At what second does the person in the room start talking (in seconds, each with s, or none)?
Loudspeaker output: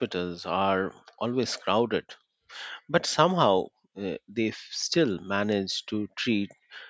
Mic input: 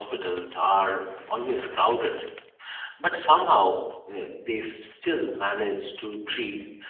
none